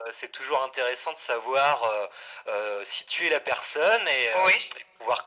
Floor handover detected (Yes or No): No